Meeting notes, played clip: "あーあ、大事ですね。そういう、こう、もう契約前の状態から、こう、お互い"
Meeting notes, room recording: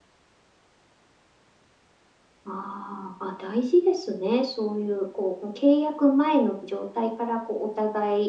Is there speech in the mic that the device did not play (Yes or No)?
No